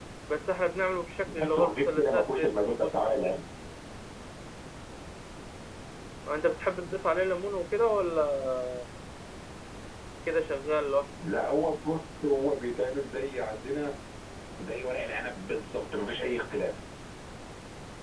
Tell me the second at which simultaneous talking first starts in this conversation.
1.3 s

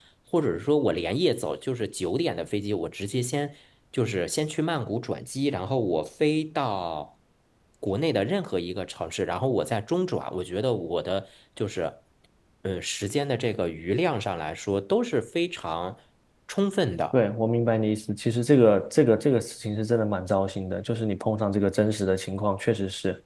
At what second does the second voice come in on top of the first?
none

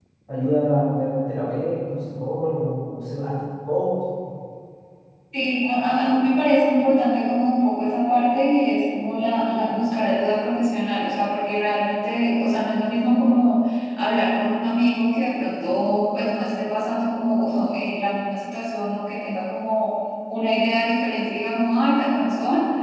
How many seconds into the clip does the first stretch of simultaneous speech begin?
none

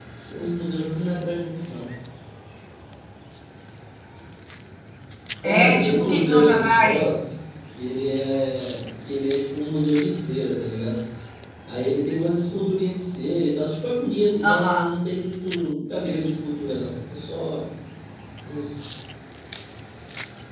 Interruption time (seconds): 5.4 s

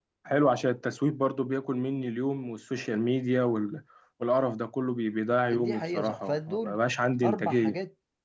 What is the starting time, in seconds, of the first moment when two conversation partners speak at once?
5.5 s

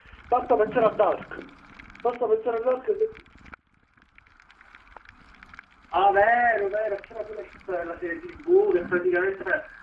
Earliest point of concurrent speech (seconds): none

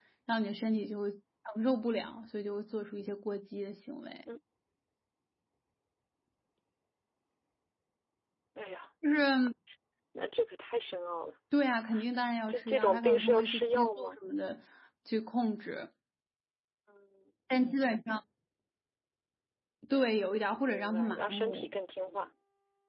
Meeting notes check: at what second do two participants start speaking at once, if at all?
12.5 s

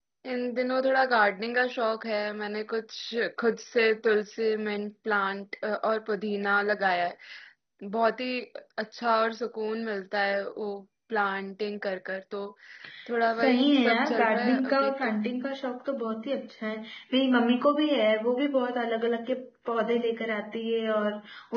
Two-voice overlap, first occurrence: 13.4 s

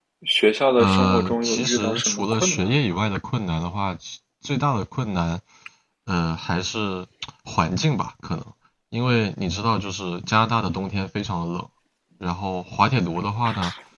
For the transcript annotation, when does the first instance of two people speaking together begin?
0.8 s

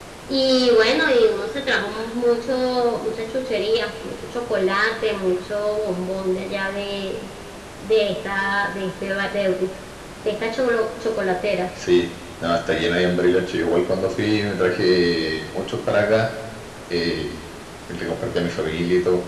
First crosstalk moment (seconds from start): none

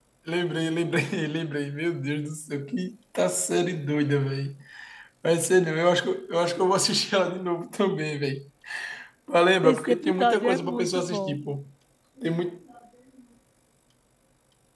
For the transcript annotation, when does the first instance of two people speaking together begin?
9.6 s

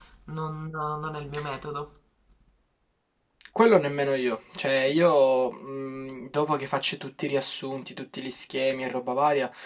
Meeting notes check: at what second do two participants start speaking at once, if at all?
none

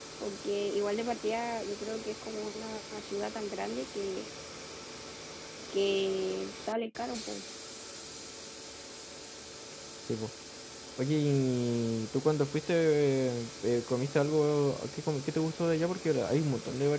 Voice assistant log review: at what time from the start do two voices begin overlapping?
none

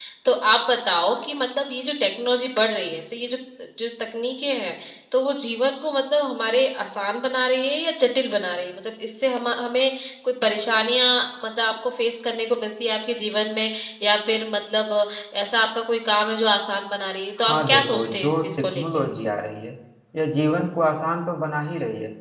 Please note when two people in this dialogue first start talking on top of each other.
17.4 s

